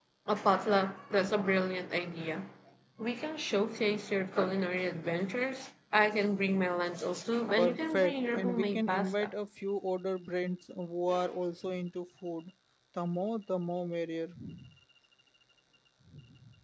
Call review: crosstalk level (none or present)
present